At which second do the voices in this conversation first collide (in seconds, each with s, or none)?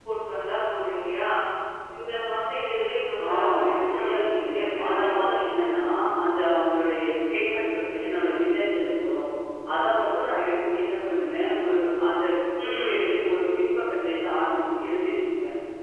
3.3 s